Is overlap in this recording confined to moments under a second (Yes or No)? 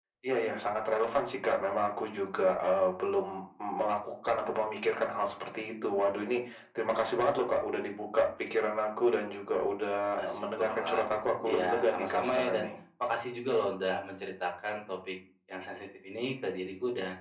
No